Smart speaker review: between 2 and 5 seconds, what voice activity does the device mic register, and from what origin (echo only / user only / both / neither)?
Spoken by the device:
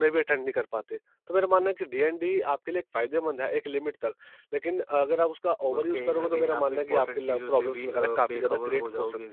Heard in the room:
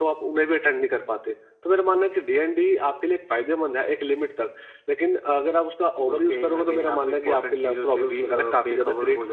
echo only